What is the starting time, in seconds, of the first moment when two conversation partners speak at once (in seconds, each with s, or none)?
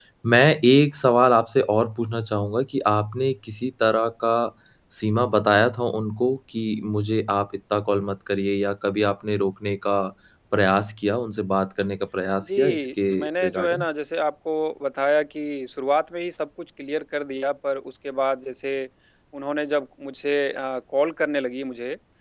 12.4 s